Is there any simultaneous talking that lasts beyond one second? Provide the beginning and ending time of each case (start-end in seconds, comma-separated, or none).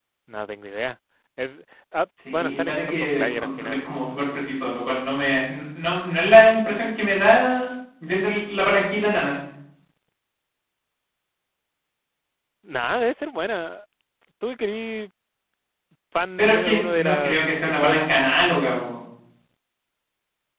2.3-3.9, 16.4-18.1